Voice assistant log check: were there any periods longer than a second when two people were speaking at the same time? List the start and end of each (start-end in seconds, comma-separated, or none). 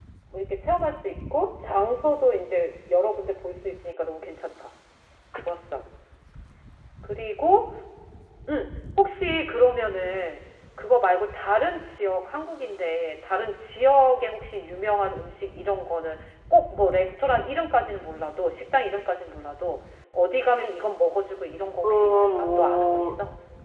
21.8-23.2